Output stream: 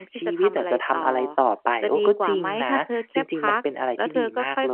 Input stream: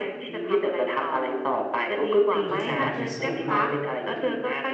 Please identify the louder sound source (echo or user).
echo